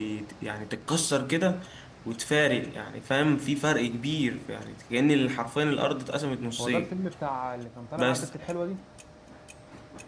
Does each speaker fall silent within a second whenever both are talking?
Yes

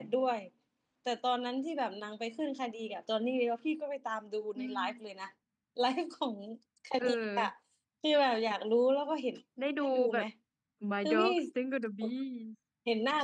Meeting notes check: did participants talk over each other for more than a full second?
No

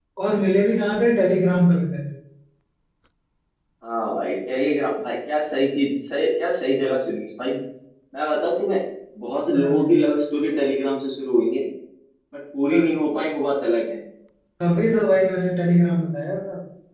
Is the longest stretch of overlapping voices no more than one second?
Yes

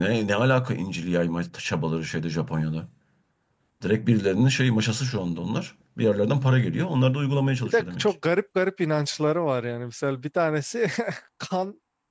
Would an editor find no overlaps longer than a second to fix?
Yes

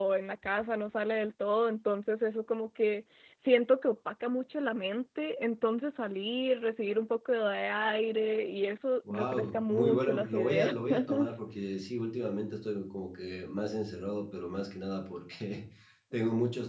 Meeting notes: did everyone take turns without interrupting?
No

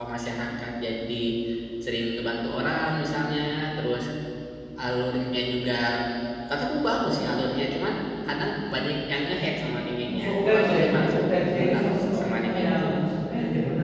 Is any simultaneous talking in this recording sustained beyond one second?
Yes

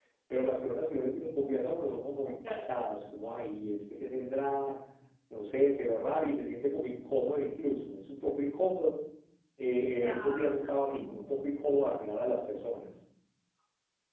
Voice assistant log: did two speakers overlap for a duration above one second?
Yes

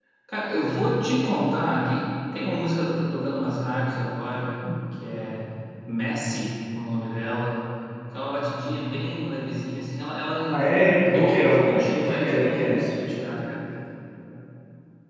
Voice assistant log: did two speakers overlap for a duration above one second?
Yes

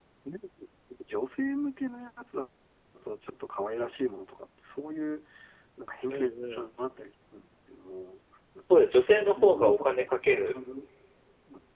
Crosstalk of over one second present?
Yes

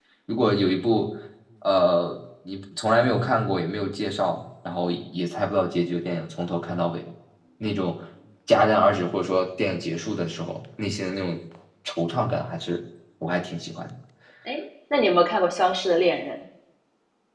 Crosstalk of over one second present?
No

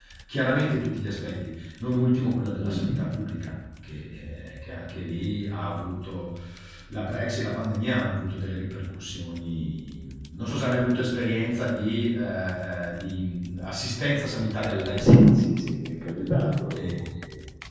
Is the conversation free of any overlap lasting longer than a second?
Yes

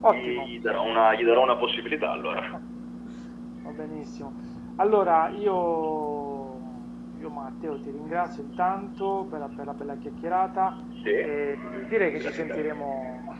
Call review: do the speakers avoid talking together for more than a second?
No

